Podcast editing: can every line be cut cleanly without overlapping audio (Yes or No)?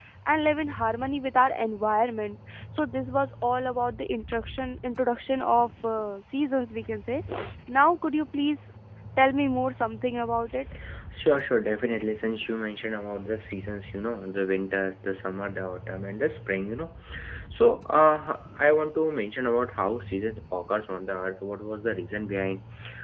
Yes